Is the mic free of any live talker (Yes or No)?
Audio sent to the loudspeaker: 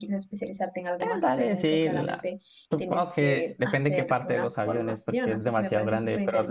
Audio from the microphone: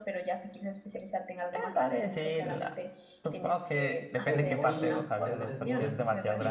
No